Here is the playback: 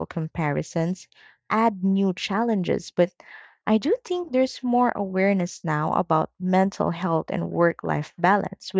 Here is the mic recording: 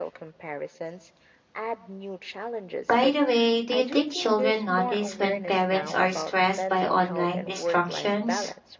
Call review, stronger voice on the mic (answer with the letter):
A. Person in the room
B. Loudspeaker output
A